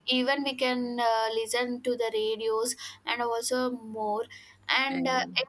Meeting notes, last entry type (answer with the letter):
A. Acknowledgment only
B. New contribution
A